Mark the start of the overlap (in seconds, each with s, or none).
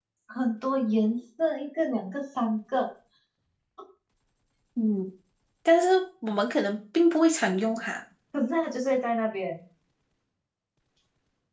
none